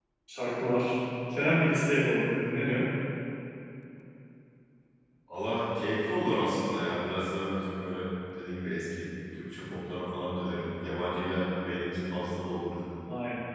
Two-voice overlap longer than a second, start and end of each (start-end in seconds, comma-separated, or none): none